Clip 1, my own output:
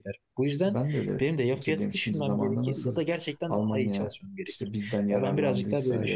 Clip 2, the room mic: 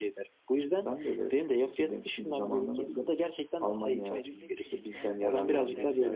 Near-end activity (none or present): present